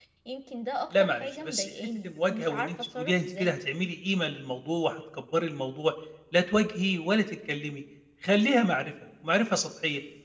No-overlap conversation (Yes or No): No